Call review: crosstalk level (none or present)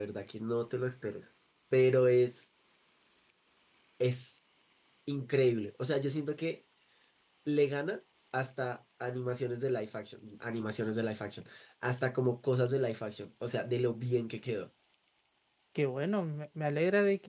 none